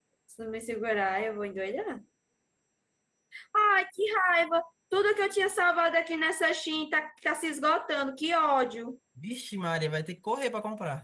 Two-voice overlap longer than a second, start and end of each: none

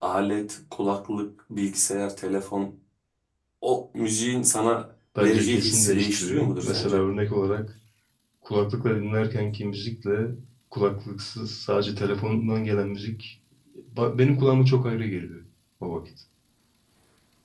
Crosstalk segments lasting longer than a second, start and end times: 5.2-7.0

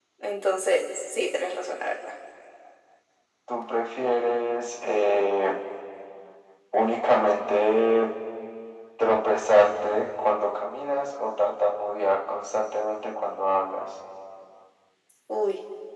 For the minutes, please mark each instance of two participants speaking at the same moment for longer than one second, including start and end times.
none

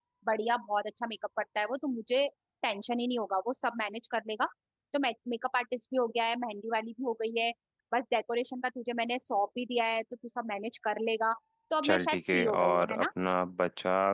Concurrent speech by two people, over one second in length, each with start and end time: 11.8-13.1

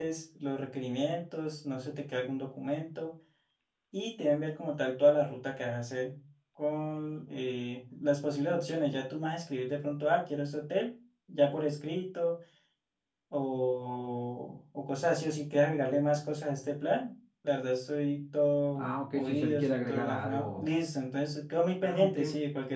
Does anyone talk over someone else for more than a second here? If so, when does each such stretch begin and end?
18.8-20.7

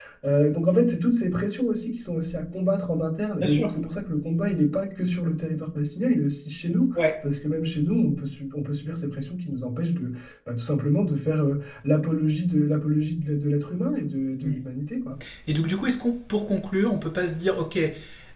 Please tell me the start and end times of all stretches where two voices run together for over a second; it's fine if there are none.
none

